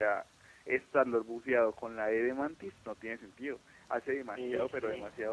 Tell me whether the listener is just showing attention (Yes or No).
No